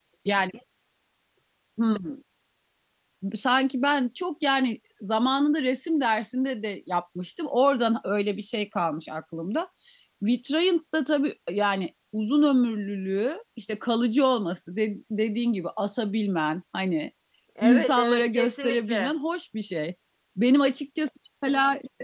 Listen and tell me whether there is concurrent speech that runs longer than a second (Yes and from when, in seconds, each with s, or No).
Yes, from 17.6 s